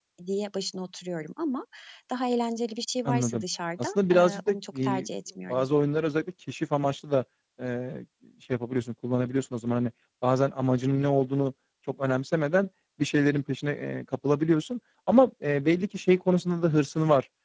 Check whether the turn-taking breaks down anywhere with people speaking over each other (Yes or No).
Yes